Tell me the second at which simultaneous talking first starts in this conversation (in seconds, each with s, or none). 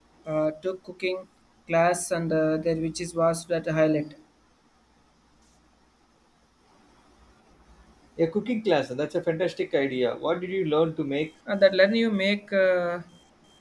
none